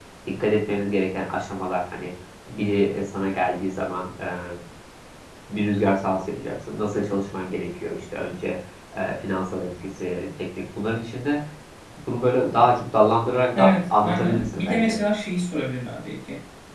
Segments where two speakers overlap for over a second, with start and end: 13.6-15.0

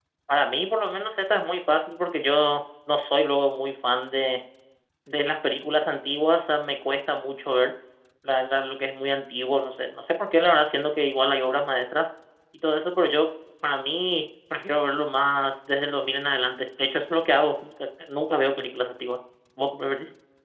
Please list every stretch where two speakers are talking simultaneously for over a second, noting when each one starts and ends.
none

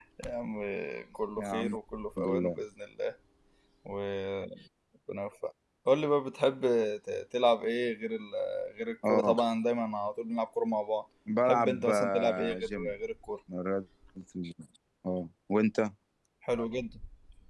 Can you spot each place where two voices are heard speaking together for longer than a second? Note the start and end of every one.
11.5-12.9

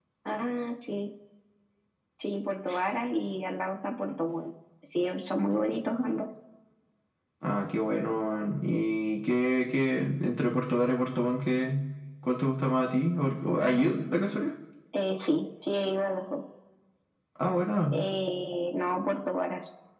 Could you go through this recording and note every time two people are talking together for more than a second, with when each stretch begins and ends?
none

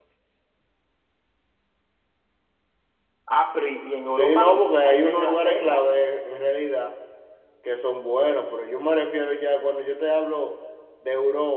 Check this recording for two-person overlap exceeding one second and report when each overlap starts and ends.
4.0-5.8

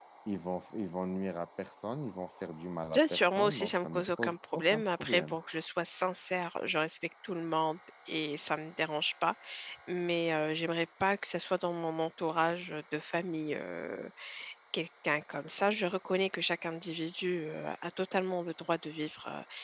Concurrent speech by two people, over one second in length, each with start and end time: 2.9-5.3

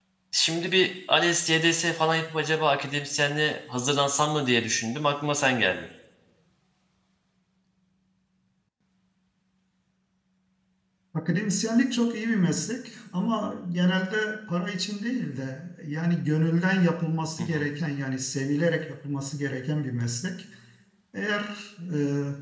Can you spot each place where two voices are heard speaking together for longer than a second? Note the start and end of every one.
none

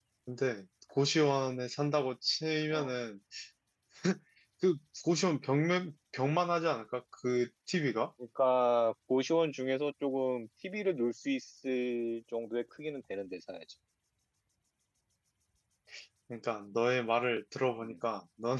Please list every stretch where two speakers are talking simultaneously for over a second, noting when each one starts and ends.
none

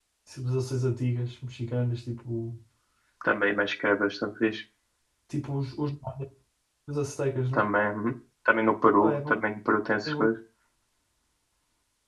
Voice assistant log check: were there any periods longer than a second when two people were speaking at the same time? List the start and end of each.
none

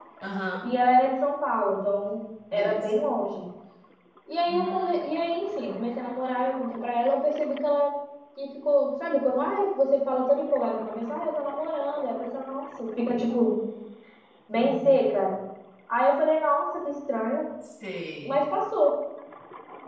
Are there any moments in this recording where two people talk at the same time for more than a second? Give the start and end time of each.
none

